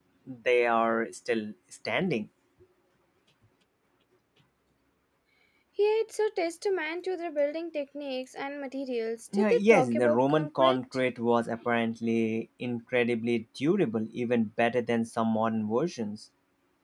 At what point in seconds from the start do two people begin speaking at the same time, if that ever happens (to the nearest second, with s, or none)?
9 s